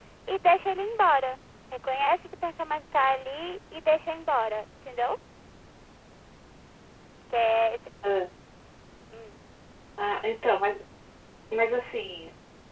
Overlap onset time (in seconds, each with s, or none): none